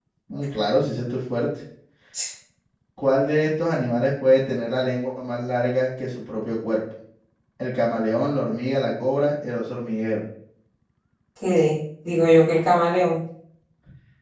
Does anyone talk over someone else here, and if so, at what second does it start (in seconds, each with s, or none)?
none